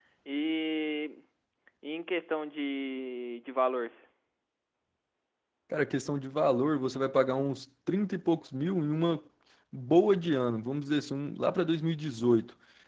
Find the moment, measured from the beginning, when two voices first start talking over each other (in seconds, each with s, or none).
none